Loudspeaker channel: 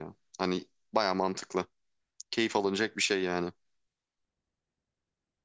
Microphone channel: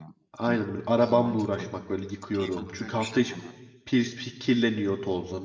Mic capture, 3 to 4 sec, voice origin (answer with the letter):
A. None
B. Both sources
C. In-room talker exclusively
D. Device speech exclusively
B